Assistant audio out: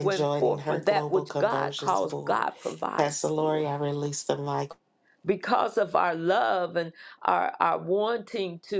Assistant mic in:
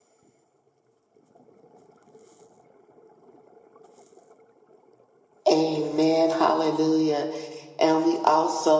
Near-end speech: present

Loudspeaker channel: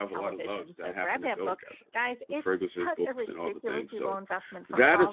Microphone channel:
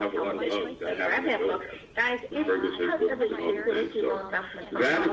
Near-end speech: present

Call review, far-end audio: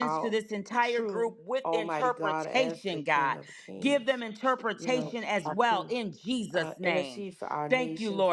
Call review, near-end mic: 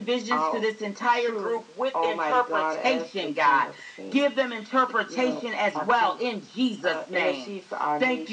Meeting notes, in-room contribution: none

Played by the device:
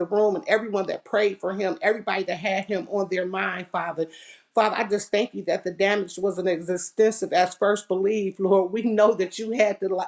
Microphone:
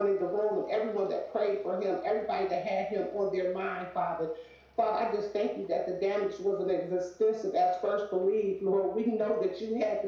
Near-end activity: none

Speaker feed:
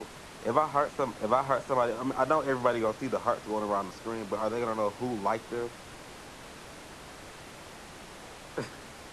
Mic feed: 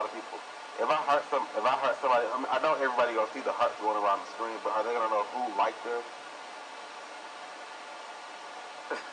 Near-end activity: none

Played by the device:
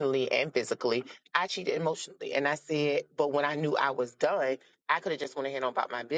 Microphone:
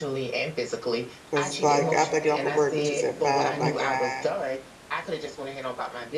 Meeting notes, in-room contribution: present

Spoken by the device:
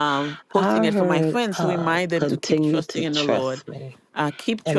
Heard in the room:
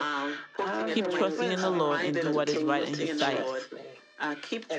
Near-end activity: present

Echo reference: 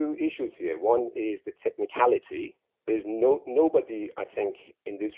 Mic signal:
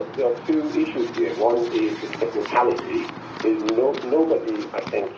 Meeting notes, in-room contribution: none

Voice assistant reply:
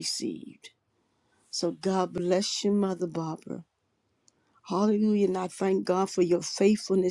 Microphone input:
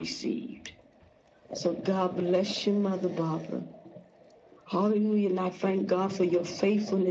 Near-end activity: none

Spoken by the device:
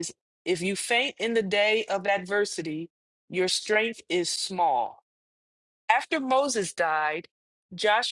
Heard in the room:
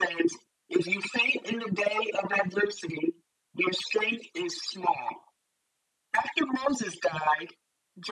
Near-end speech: none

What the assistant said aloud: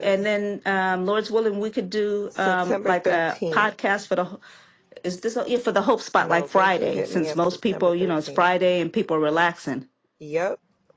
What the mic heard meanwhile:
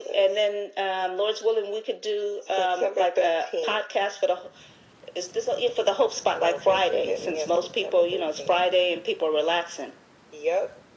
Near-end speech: none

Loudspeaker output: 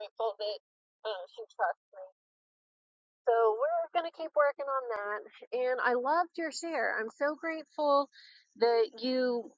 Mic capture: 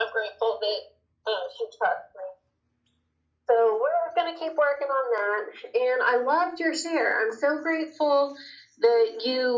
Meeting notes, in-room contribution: none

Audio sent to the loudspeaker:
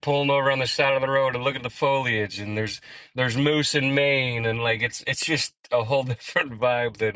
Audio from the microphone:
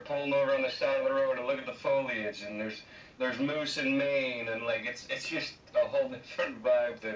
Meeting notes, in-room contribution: none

